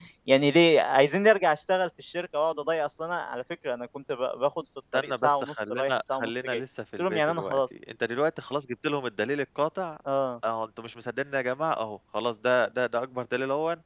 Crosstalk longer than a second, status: present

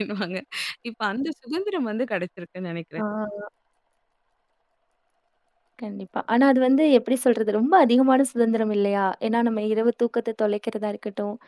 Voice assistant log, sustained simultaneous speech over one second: none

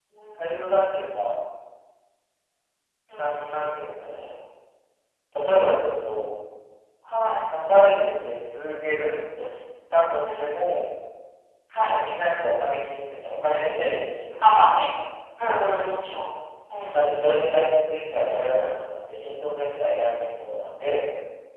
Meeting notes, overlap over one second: none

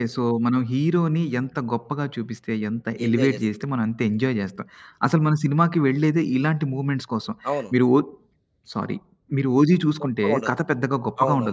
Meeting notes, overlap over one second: none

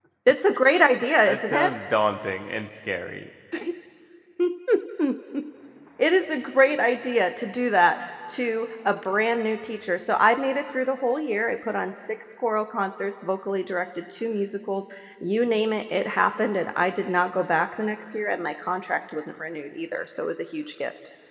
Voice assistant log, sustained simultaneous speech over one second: none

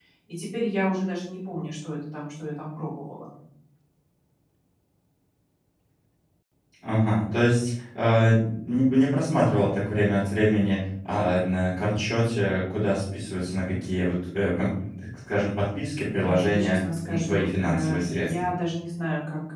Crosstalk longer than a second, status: present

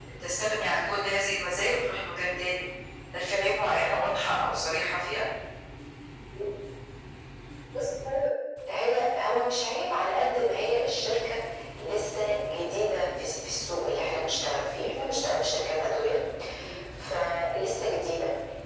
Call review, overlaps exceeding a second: none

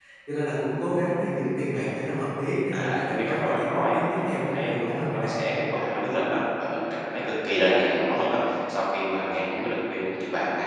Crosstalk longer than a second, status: present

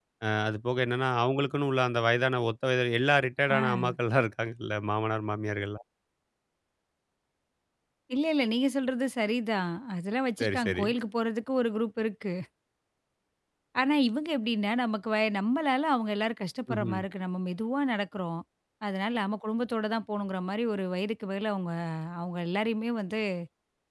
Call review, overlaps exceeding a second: none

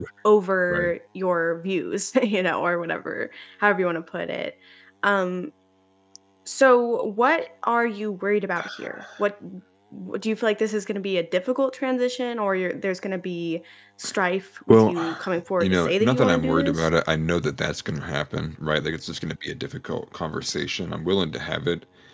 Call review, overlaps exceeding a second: present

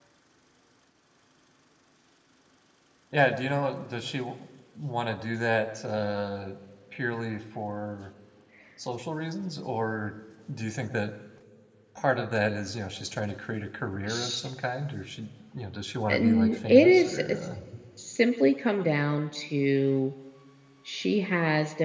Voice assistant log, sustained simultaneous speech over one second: present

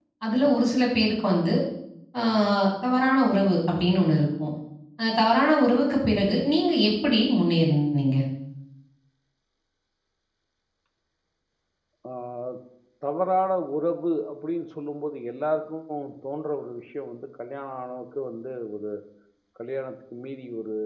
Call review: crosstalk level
none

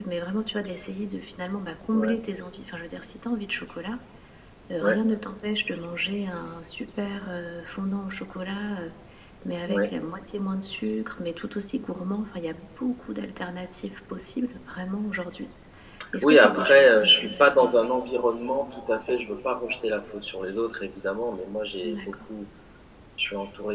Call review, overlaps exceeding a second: present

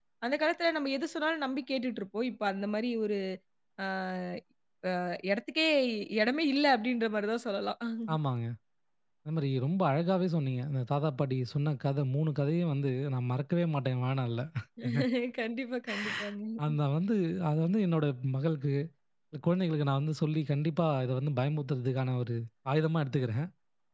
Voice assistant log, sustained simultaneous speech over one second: none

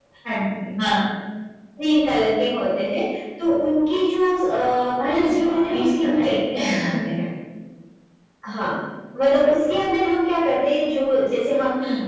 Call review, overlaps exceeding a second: present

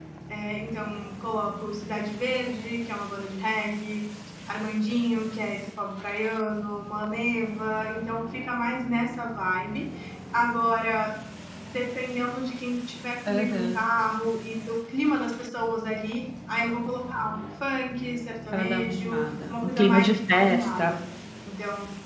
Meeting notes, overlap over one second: present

